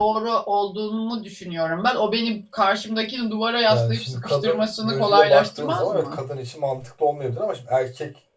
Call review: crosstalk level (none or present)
present